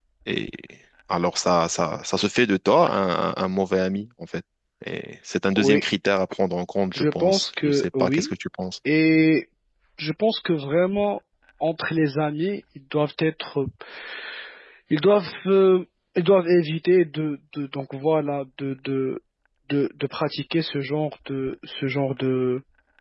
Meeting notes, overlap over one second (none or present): present